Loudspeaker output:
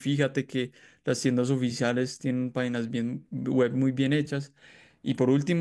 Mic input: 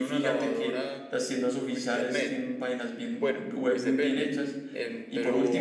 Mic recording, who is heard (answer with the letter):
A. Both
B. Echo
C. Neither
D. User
A